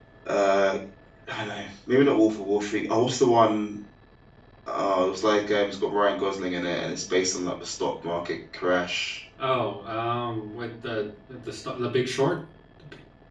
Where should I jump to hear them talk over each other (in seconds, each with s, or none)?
none